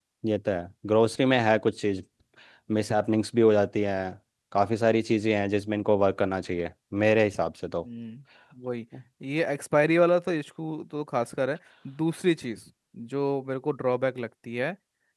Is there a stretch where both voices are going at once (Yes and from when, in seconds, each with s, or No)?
No